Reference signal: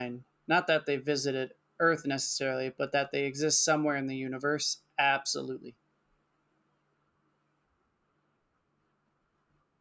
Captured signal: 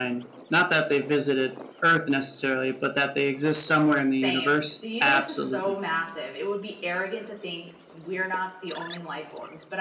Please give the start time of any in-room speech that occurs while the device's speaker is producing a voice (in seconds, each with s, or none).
4.1 s